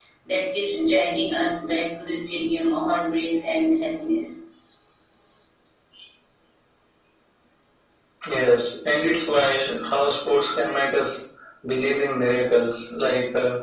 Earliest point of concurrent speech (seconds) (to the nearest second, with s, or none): none